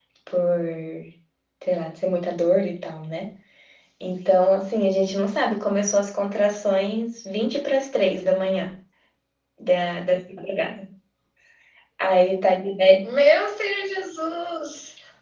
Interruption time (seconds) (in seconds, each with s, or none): none